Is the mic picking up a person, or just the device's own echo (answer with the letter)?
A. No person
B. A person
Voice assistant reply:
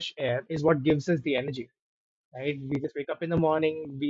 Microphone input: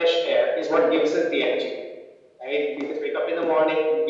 A